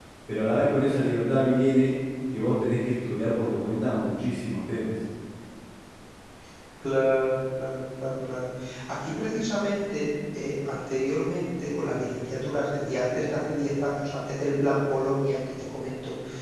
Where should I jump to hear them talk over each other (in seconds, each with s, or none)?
none